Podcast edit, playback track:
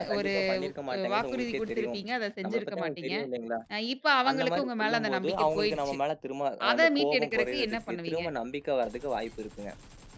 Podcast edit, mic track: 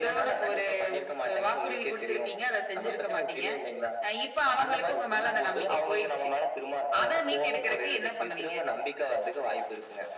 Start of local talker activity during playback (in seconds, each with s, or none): none